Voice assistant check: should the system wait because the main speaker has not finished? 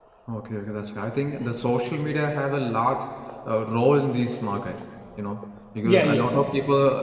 Yes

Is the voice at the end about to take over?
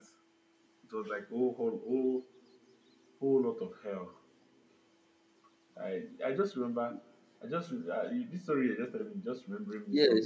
Yes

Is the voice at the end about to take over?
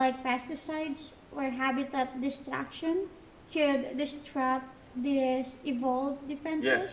Yes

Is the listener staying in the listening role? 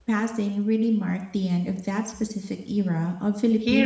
No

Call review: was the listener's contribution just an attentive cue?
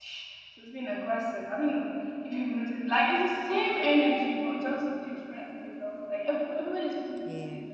Yes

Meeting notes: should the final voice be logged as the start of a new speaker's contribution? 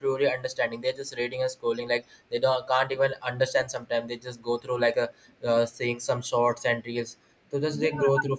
Yes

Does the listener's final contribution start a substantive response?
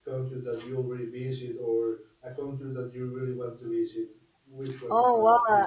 Yes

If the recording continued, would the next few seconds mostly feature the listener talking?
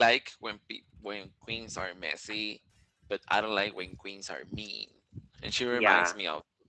No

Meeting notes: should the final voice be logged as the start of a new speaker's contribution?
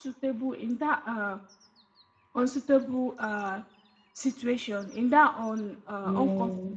No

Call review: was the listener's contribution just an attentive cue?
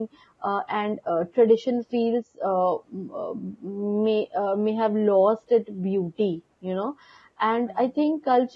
Yes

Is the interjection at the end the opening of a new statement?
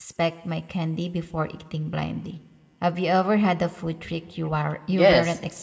Yes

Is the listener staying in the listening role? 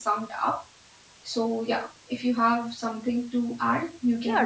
No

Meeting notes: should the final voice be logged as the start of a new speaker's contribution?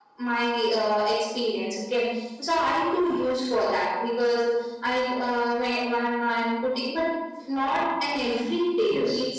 No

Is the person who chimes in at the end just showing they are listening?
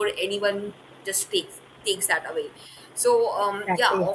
Yes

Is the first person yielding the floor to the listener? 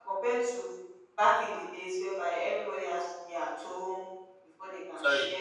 Yes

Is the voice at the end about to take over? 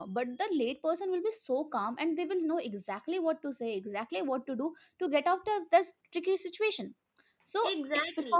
No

